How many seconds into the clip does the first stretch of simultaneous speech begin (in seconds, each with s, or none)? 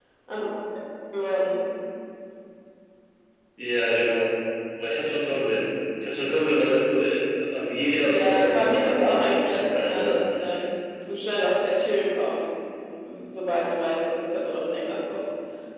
8.1 s